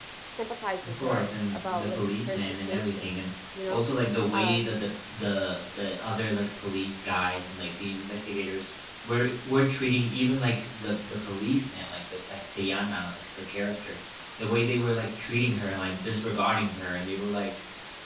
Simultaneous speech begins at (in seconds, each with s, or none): 0.8 s